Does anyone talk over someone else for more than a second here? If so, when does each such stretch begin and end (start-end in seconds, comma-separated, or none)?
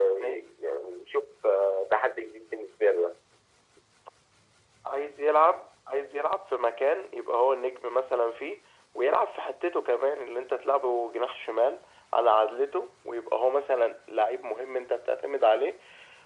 none